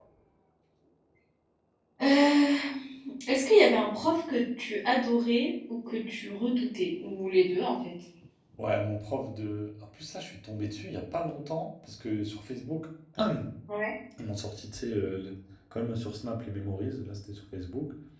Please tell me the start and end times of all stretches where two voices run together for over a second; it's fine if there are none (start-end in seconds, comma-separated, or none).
none